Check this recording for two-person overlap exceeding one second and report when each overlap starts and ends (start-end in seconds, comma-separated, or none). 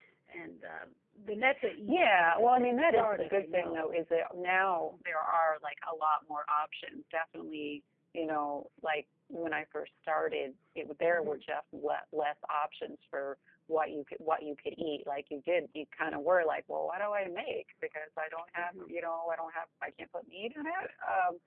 1.9-4.0